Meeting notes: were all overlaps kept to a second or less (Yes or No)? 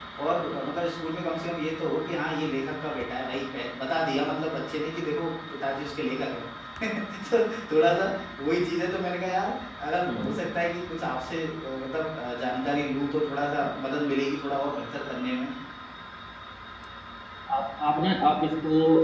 Yes